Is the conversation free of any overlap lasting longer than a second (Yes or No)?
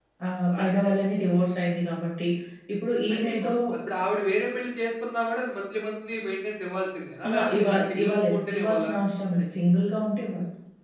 No